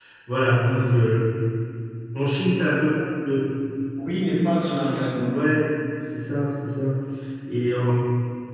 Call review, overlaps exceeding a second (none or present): none